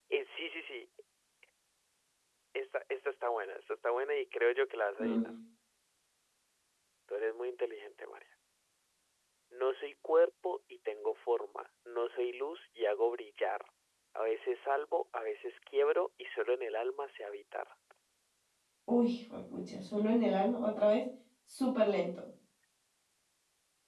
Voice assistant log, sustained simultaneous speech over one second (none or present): none